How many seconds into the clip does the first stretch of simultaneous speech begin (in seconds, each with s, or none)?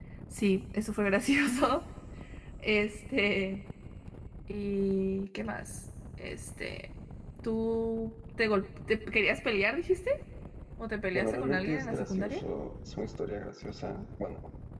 11.1 s